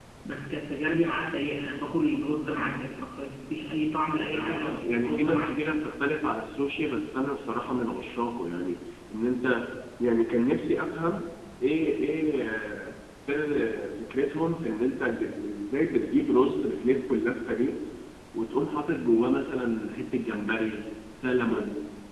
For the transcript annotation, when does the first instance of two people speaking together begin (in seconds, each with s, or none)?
4.2 s